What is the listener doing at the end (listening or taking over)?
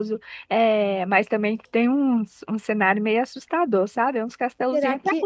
listening